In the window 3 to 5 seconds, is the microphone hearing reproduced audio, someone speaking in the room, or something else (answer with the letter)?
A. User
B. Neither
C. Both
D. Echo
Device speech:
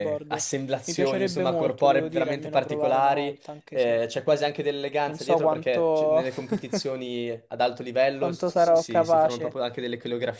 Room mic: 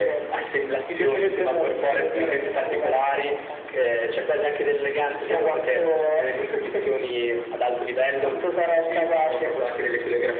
D